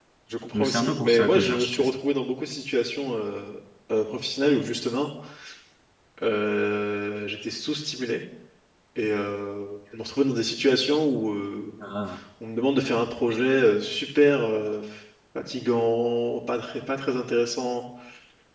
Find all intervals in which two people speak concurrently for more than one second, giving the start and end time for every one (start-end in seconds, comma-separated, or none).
0.5-2.0